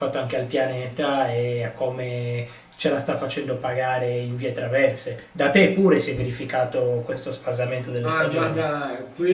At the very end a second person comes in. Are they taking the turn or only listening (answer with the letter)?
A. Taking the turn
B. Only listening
A